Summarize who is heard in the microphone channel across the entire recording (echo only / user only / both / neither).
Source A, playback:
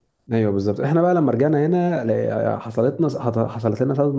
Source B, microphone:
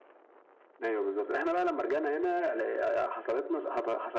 echo only